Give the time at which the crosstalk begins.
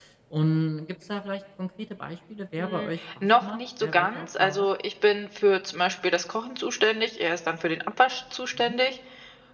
2.6 s

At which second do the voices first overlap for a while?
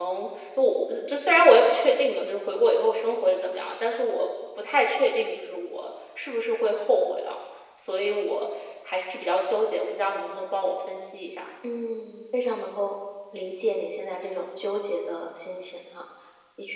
none

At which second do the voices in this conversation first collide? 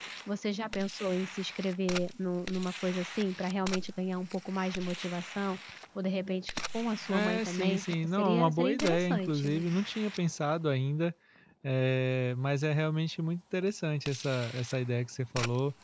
7.1 s

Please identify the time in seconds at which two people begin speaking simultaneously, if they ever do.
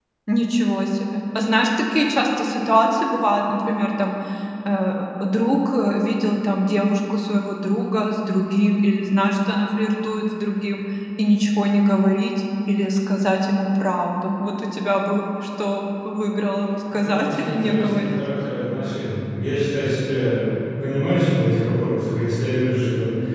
16.9 s

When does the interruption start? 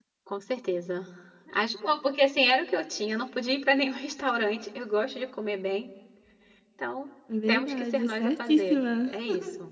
7.5 s

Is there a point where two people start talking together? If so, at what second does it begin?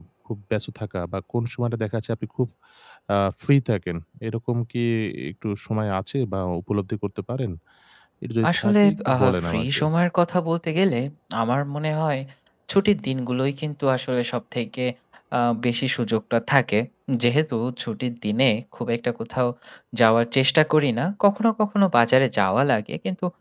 8.5 s

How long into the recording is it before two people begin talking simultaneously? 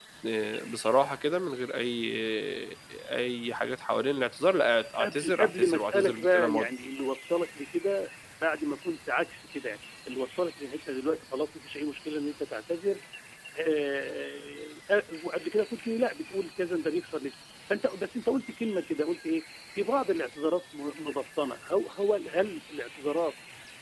5.0 s

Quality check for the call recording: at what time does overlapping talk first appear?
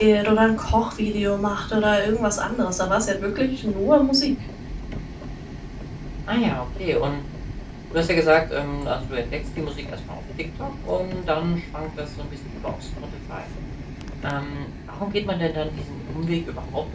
none

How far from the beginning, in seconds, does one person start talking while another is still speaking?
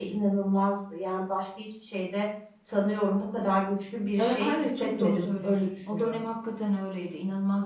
4.2 s

